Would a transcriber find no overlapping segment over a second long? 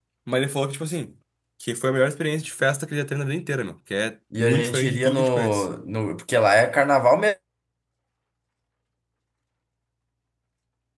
No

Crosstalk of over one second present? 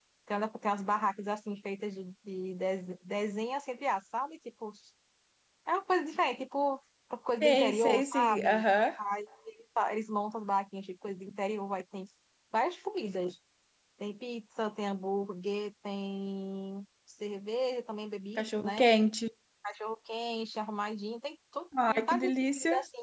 Yes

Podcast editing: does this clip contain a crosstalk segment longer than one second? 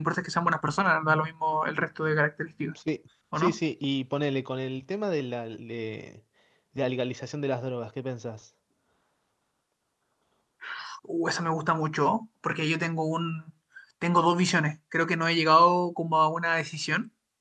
No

